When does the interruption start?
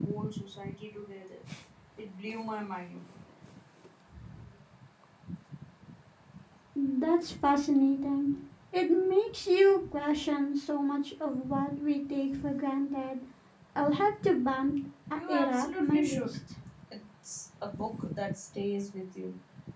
15.1 s

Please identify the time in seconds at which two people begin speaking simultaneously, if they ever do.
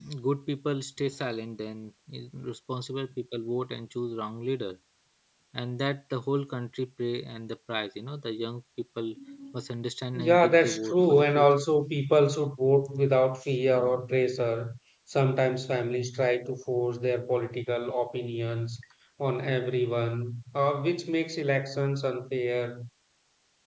10.2 s

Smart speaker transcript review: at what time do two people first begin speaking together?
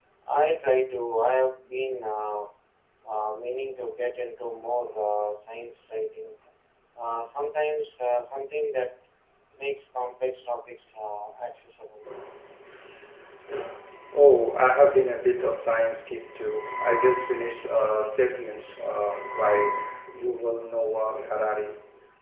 none

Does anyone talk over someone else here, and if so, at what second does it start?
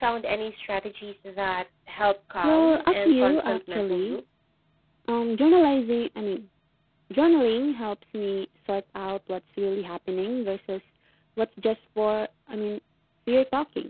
2.4 s

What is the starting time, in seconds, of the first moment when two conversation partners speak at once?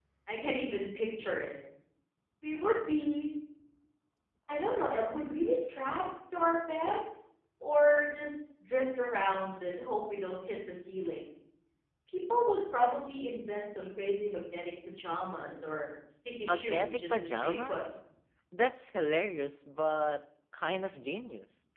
16.5 s

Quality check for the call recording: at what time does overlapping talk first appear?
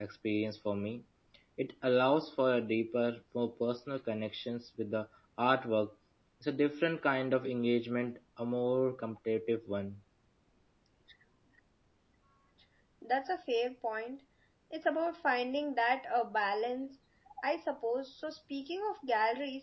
none

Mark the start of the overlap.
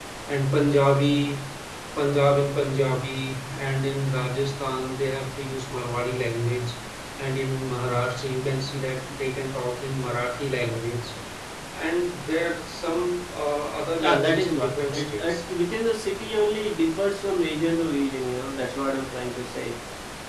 14.0 s

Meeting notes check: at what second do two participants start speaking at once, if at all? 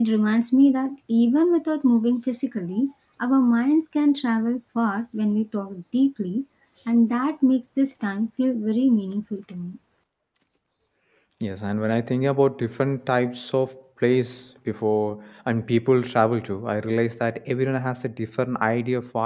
none

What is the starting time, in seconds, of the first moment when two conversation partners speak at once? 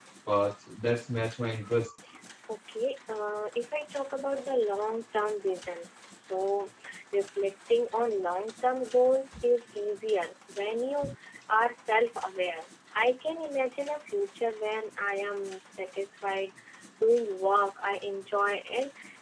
none

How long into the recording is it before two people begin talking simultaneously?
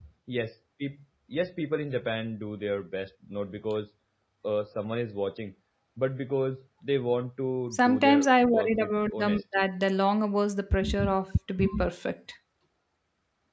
7.7 s

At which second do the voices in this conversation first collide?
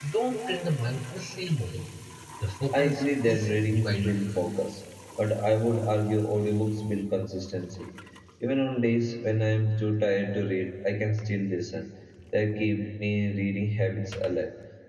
2.7 s

